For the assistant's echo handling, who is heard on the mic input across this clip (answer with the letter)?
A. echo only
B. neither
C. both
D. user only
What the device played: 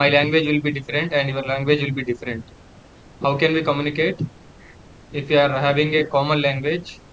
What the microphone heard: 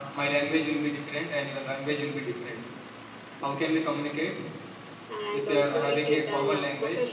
C